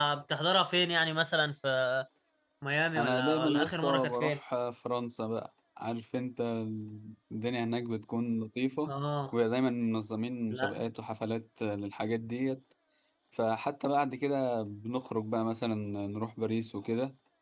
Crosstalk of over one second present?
Yes, from 3.0 s

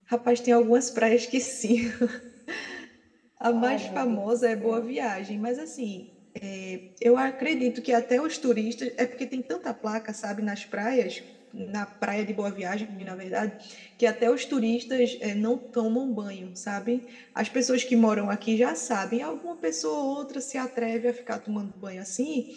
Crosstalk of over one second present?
Yes, from 3.5 s

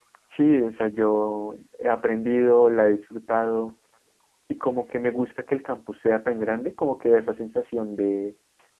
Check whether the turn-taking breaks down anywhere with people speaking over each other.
No

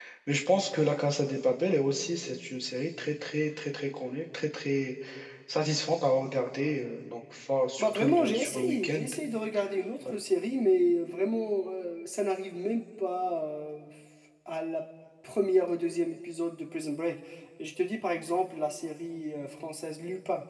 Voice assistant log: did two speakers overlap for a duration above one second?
Yes, from 7.8 s

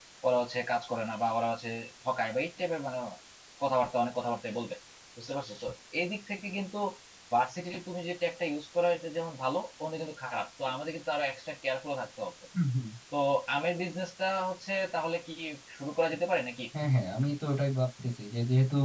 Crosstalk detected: No

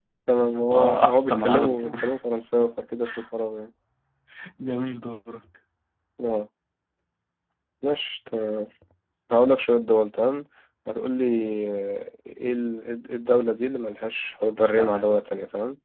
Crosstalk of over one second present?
Yes, from 0.7 s

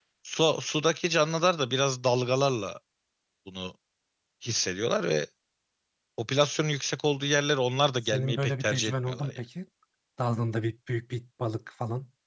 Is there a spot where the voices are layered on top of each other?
Yes, from 8.0 s

